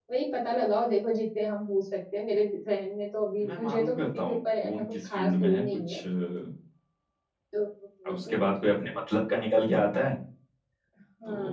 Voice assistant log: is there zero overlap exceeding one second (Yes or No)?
No